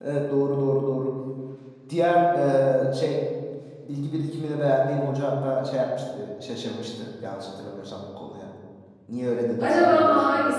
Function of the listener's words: taking over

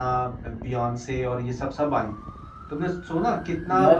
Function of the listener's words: listening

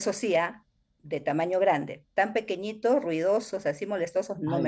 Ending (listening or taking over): taking over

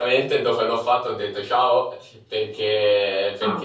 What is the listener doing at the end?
listening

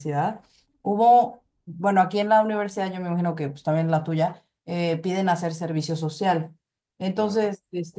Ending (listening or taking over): listening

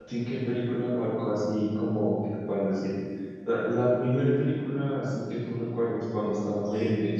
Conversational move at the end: taking over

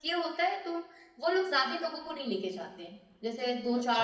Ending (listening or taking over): listening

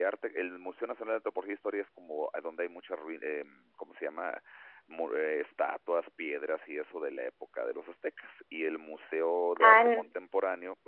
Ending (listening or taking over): listening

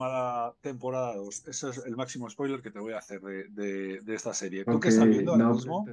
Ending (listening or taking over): taking over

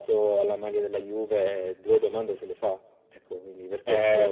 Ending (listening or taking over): taking over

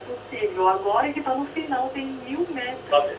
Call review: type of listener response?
taking over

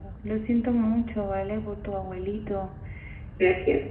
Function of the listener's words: listening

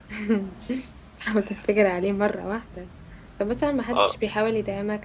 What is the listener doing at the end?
listening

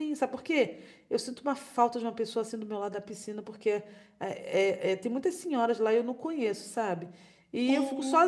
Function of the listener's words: listening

